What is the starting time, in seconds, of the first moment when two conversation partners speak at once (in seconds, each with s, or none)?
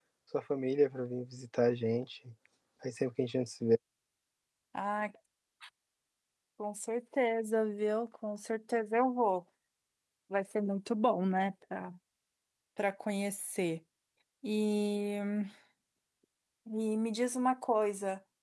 none